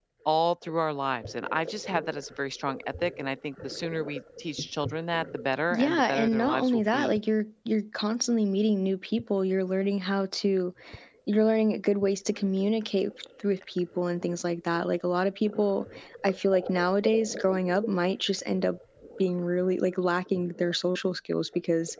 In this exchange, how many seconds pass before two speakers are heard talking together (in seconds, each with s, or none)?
5.7 s